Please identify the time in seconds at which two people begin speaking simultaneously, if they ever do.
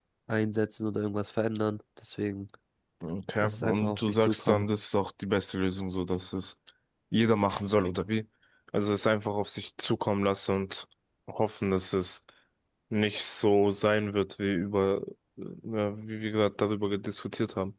3 s

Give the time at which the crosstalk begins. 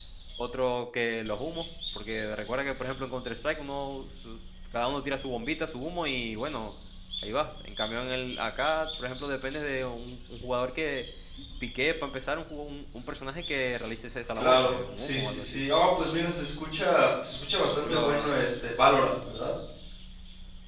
14 s

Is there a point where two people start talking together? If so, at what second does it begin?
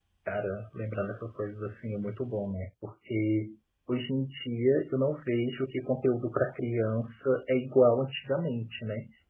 none

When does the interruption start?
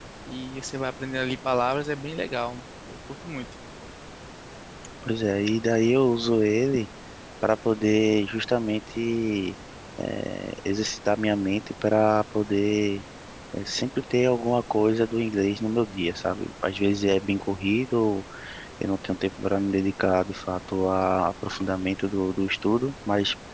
none

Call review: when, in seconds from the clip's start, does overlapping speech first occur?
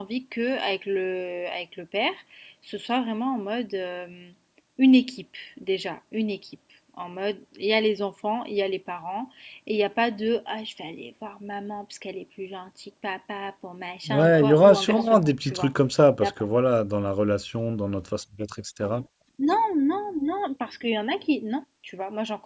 14 s

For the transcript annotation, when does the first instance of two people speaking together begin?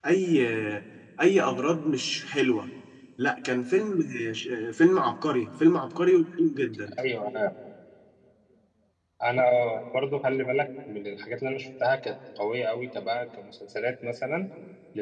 none

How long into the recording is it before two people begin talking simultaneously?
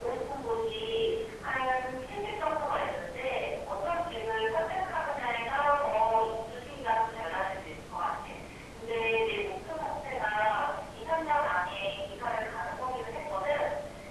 none

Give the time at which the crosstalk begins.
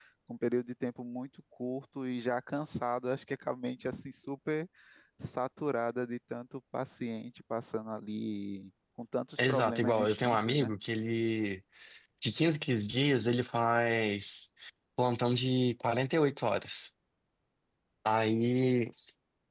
9 s

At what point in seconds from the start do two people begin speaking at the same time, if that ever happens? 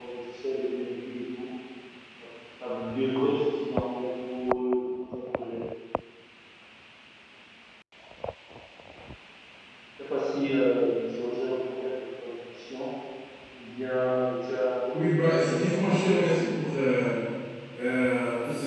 15 s

